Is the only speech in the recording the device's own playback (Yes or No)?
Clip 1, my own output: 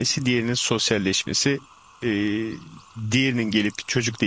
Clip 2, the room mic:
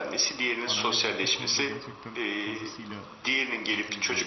No